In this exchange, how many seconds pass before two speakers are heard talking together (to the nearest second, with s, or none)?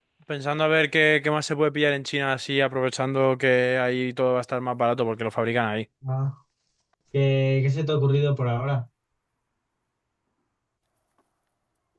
none